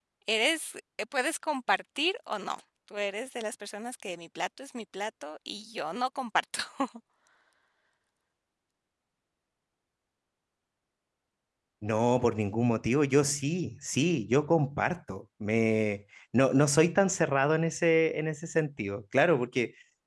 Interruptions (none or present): none